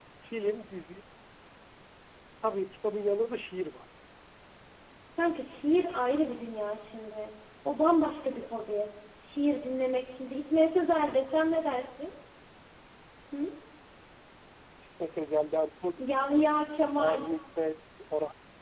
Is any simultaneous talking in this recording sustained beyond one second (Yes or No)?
No